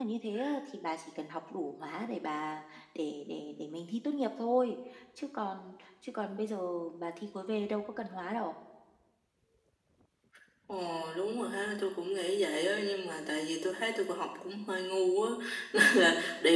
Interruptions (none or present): none